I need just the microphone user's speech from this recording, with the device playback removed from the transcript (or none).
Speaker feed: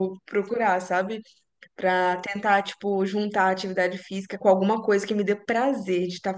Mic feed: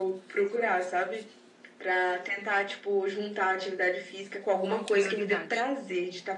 Como prioridade.